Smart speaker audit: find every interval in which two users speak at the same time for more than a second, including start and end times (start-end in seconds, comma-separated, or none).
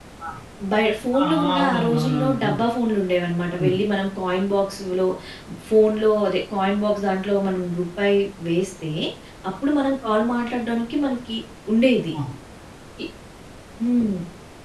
1.2-2.5